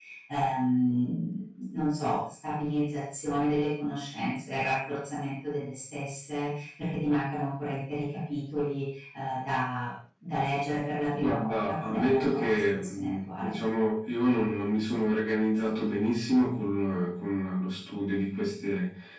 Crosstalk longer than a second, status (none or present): present